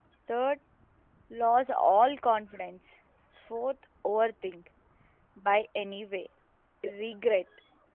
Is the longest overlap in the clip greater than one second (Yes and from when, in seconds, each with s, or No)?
No